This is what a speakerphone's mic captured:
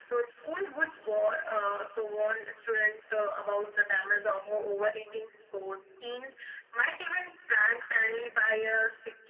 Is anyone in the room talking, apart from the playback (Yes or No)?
No